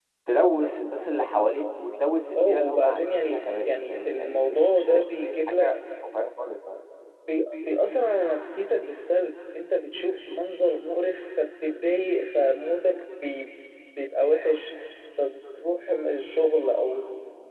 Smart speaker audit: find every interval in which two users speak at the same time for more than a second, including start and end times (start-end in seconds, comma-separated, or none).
2.4-5.8